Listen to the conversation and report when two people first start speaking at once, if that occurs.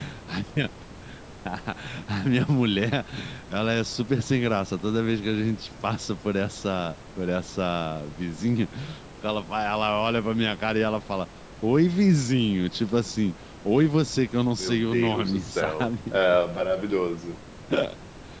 14.6 s

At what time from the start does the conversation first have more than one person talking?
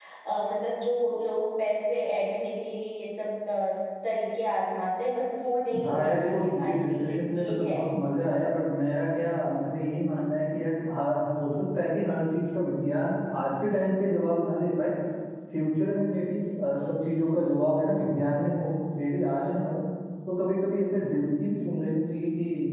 5.7 s

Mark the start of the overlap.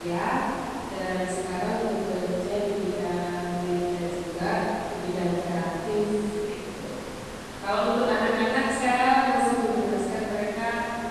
none

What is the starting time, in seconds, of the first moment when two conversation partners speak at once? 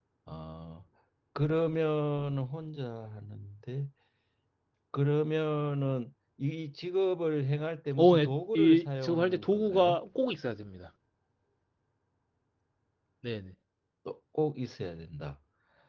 8.0 s

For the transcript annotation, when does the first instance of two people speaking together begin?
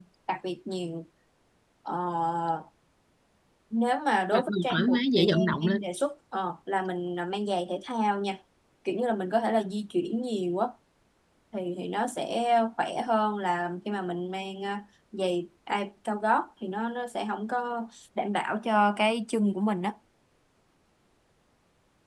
4.3 s

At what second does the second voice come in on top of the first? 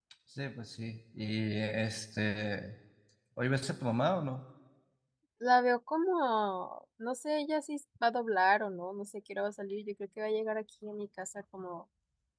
none

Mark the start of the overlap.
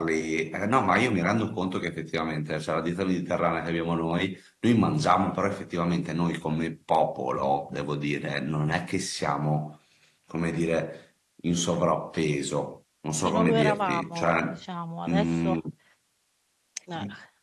13.2 s

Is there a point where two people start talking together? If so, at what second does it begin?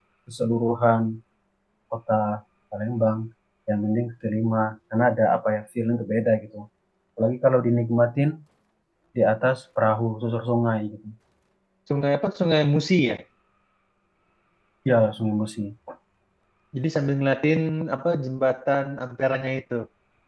none

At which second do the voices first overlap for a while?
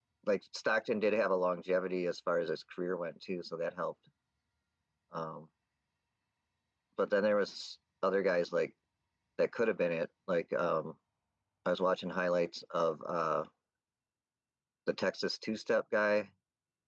none

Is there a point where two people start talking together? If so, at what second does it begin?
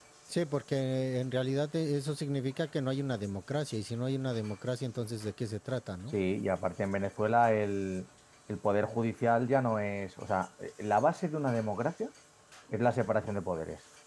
none

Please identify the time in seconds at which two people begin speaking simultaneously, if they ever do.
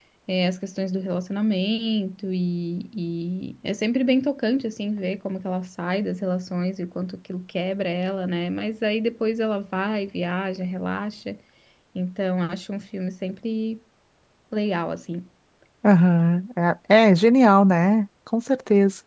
none

